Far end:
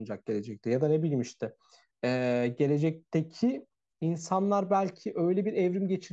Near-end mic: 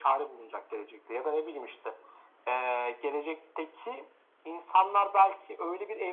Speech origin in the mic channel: echo only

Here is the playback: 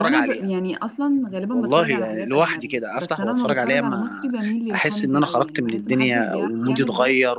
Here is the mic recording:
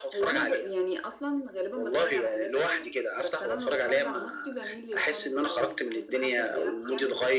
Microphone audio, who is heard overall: echo only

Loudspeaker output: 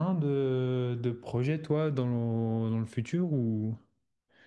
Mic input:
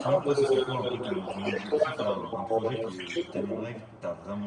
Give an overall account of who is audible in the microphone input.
both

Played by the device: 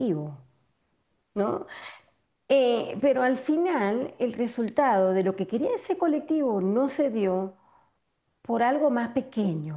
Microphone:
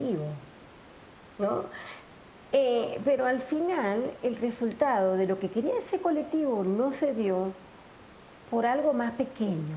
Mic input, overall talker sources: echo only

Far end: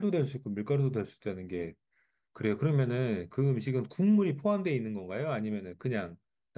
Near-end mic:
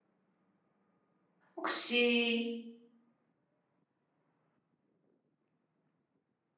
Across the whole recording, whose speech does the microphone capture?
user only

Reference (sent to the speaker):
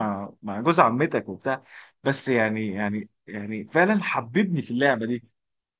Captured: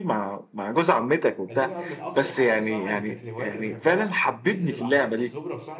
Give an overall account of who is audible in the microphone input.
both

